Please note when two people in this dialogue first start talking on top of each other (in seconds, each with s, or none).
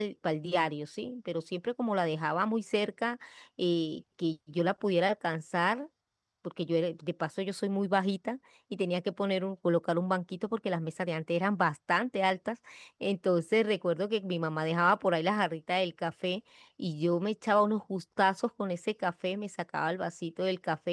none